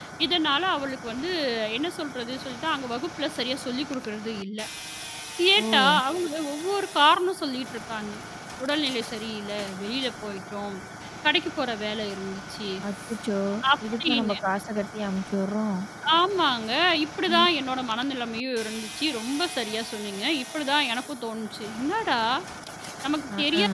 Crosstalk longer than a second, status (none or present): none